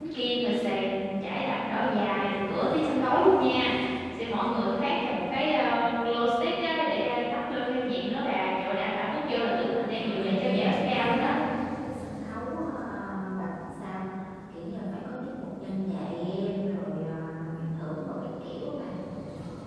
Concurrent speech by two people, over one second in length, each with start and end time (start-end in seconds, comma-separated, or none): 9.9-11.3